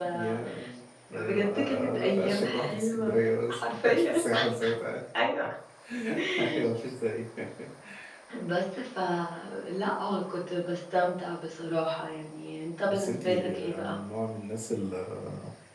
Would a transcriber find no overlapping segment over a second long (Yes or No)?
No